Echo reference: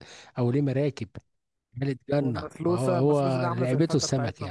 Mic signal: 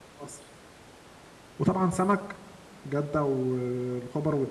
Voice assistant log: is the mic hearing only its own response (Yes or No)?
No